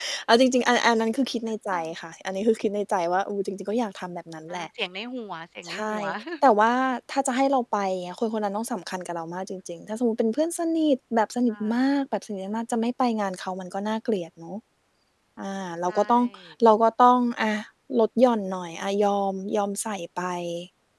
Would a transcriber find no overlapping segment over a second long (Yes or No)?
Yes